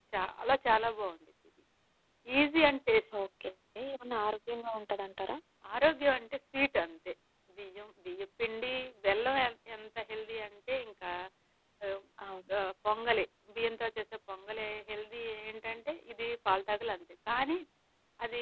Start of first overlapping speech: none

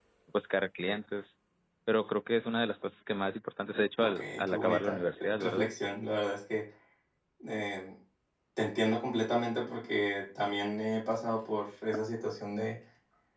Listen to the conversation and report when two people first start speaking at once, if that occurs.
4.0 s

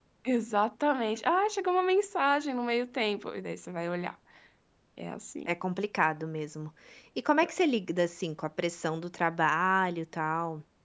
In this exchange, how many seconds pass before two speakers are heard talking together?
none

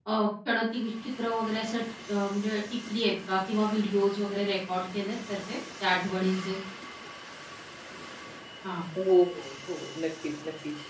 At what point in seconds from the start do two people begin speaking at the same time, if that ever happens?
none

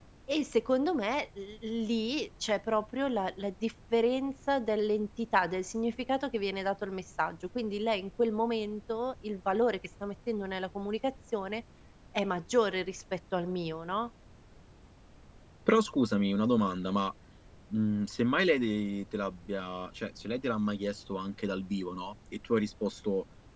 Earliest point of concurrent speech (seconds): none

